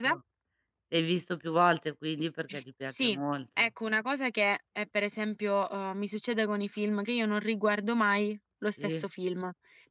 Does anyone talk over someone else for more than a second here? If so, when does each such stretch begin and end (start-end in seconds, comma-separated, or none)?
none